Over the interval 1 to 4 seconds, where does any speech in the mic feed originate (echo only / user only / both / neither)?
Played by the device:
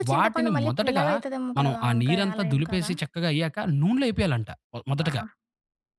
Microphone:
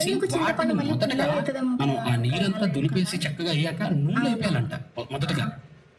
echo only